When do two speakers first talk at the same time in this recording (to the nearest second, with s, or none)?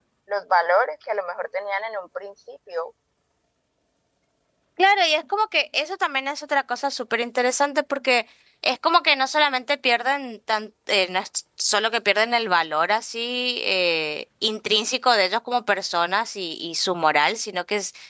none